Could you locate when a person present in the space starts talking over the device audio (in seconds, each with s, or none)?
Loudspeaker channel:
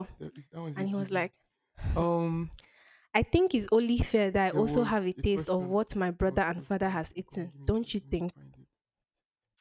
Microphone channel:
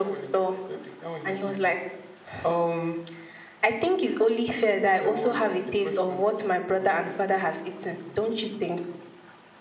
none